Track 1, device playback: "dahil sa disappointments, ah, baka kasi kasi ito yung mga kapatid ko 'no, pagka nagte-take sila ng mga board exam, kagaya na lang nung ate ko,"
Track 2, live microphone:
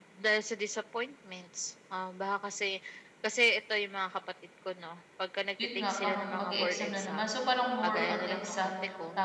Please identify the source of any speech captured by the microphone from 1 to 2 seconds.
echo only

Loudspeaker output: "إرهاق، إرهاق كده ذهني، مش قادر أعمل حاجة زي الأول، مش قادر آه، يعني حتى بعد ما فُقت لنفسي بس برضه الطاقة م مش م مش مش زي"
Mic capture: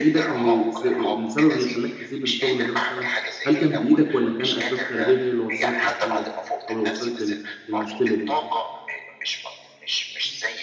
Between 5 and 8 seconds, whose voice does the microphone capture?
both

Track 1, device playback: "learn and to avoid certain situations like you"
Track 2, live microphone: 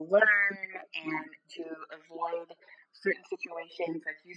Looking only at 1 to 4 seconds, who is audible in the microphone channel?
echo only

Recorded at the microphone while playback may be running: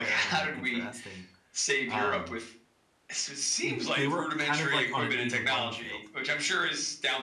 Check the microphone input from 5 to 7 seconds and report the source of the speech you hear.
both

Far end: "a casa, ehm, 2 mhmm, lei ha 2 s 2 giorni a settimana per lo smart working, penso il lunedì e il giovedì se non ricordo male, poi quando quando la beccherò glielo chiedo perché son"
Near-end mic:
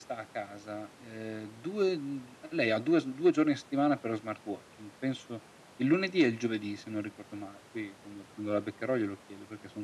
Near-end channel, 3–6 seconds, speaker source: echo only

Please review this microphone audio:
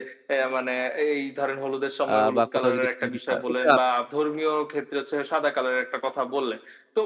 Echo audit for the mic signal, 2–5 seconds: both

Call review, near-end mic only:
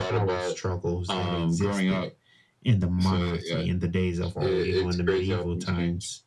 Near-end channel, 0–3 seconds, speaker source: echo only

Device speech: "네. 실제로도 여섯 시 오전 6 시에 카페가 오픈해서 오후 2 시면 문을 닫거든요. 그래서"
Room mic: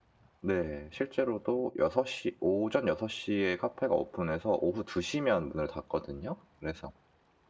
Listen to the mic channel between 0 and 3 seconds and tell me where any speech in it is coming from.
echo only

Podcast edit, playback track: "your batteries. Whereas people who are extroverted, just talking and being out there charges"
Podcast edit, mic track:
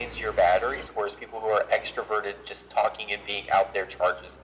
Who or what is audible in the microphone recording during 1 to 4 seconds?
echo only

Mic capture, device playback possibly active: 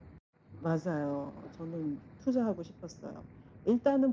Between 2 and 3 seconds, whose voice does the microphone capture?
echo only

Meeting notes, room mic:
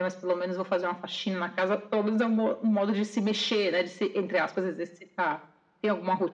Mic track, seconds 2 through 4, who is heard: echo only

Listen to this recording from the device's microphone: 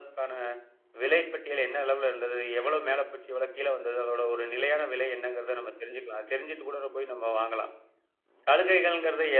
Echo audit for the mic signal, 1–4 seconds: echo only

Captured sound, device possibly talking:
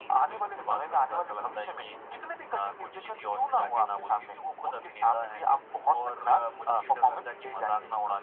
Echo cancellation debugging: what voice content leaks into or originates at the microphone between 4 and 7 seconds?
echo only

